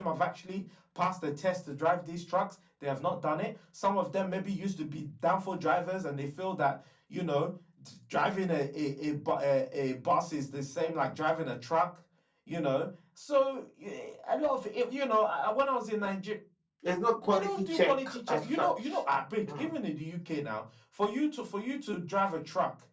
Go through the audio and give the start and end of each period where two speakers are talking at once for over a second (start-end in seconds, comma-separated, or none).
17.3-19.0